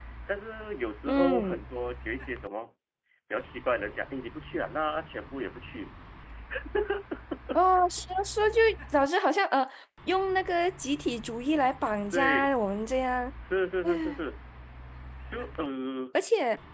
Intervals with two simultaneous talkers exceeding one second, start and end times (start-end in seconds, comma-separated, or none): none